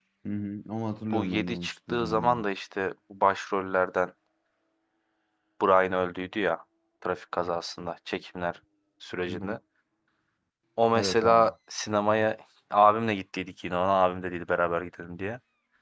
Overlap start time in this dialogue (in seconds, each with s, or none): 1.0 s